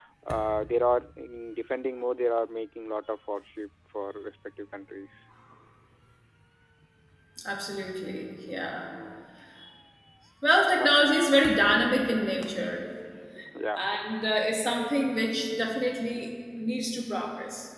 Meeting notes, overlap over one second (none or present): none